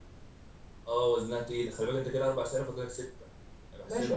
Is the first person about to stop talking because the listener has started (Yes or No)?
Yes